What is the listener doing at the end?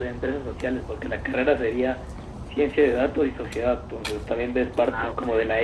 listening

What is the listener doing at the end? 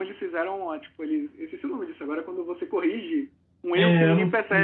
taking over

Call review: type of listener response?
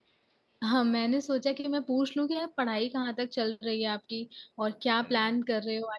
listening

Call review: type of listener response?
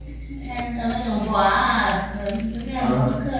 taking over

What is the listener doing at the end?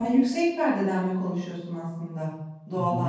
taking over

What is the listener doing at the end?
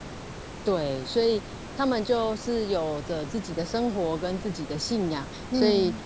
listening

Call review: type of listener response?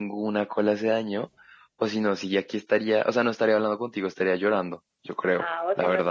taking over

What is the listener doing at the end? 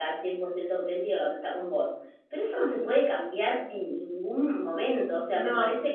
listening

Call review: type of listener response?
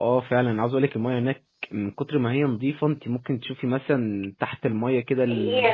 taking over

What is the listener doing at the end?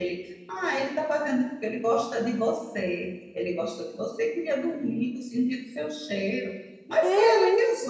listening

